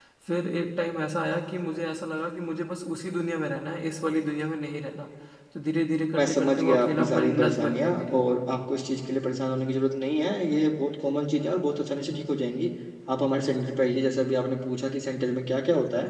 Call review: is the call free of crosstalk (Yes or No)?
No